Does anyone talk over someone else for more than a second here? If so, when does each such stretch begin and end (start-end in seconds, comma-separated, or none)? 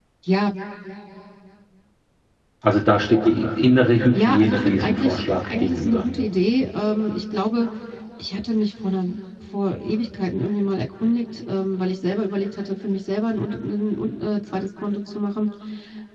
4.1-6.1